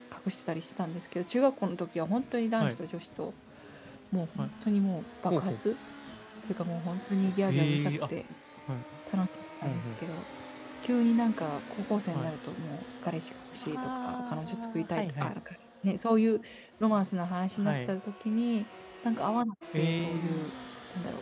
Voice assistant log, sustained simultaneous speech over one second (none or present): present